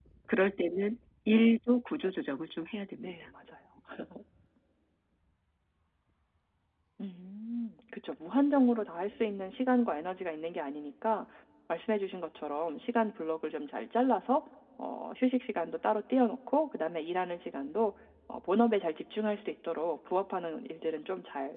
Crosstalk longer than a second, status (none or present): none